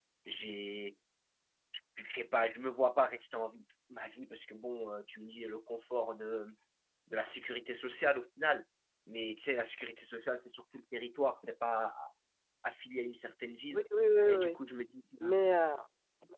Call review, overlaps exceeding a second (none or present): none